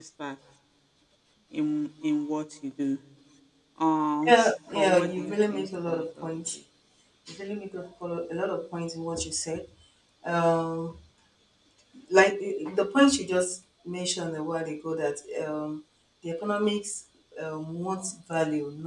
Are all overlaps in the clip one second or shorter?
No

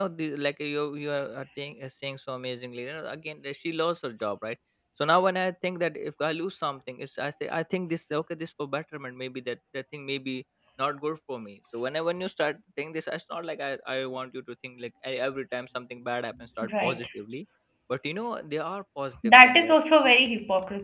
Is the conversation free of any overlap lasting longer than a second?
Yes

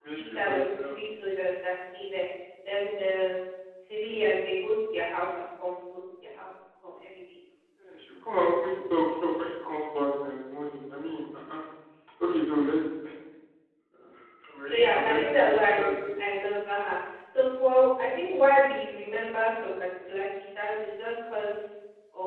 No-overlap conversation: No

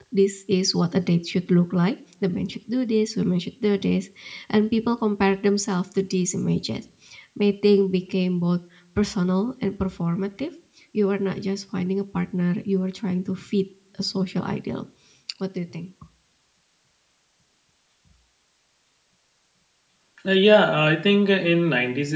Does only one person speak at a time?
Yes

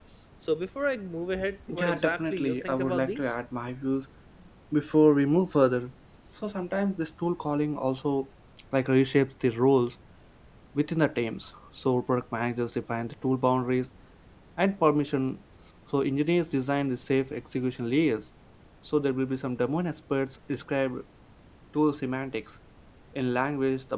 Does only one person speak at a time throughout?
No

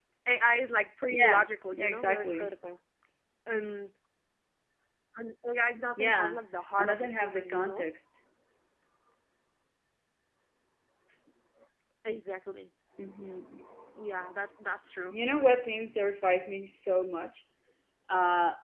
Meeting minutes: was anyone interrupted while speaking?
Yes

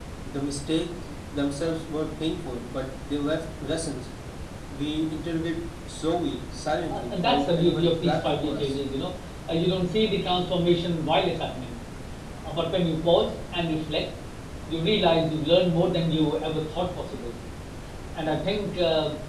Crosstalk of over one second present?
Yes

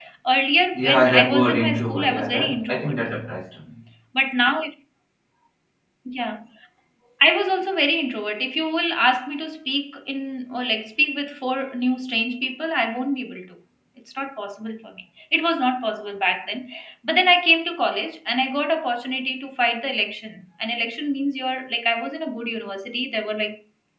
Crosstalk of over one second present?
Yes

